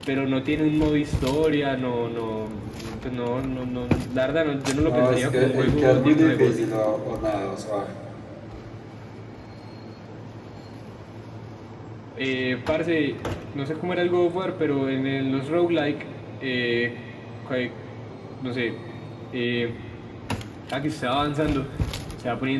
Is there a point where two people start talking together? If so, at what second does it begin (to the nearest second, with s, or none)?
5 s